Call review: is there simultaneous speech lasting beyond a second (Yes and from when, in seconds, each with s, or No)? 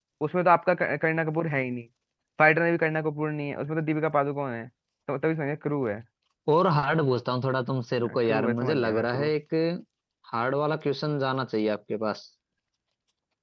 Yes, from 8.0 s